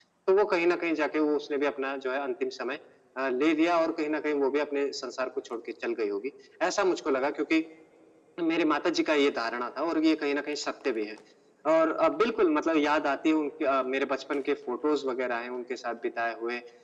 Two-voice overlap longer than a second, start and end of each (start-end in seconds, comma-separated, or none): none